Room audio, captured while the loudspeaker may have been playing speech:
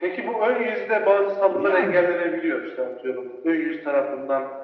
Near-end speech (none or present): present